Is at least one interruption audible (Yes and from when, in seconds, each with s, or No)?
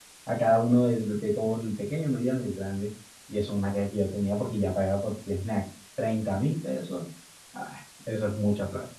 No